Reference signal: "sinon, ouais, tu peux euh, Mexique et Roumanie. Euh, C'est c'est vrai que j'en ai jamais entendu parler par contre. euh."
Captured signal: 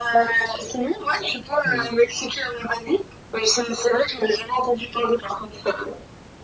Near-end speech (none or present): present